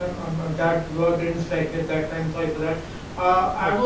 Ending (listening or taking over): listening